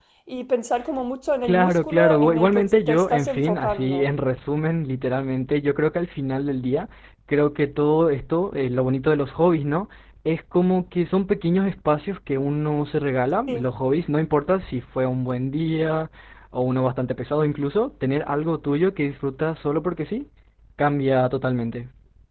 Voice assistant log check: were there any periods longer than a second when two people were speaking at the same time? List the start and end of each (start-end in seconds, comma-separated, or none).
1.4-4.0